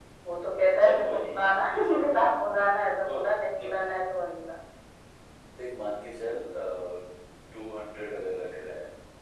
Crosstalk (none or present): present